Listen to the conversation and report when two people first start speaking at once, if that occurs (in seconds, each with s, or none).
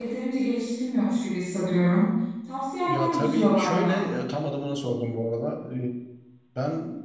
2.8 s